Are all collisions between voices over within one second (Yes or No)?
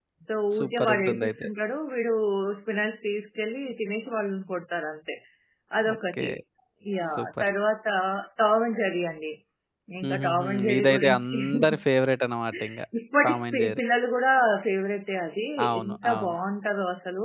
No